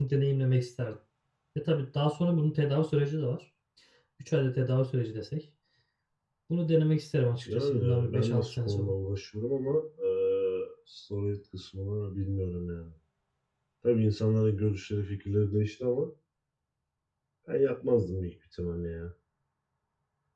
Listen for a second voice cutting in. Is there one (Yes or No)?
Yes